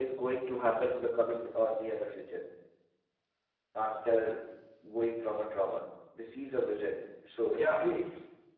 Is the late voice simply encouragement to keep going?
No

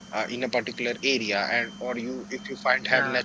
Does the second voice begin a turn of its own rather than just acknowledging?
No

